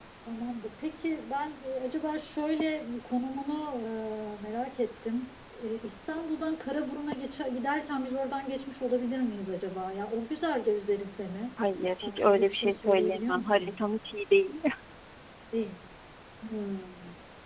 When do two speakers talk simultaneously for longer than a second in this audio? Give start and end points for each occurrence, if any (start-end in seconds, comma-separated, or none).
12.0-13.8